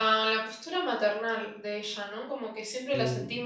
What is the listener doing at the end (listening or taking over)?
listening